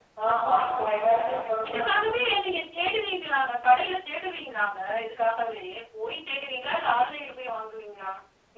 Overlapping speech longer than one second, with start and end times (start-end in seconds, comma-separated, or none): none